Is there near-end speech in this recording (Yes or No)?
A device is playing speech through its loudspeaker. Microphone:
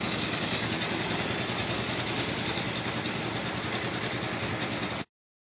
No